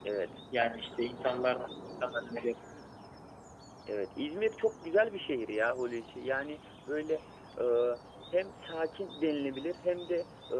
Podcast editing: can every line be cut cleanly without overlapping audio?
Yes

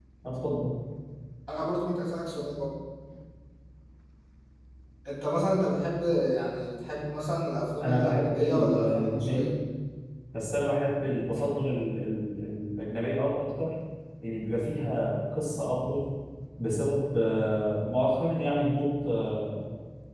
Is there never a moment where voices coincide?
No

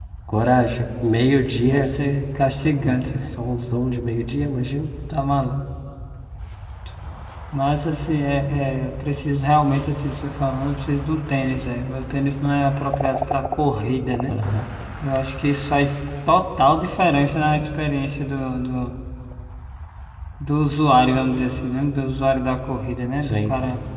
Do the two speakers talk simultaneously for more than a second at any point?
No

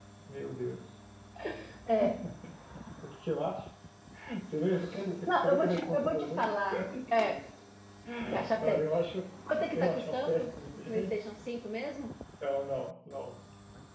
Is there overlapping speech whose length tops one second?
Yes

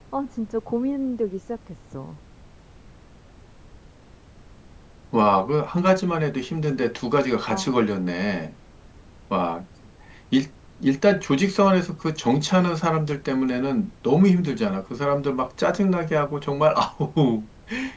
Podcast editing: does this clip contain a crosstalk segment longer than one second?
No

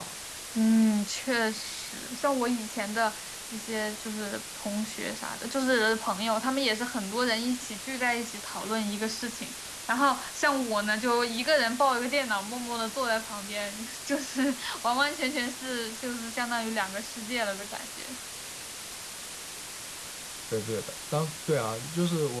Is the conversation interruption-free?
Yes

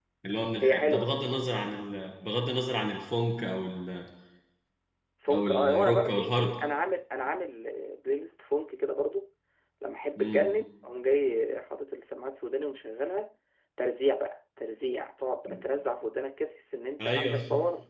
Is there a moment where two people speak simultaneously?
Yes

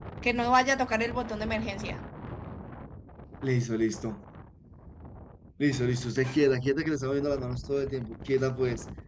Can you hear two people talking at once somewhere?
No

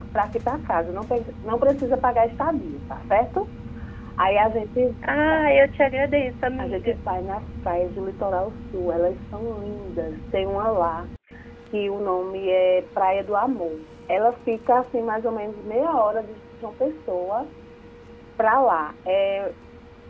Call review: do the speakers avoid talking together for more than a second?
Yes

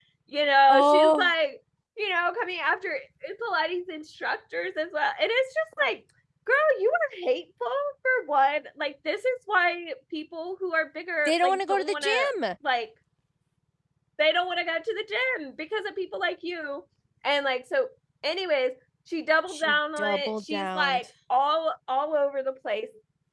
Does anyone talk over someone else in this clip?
Yes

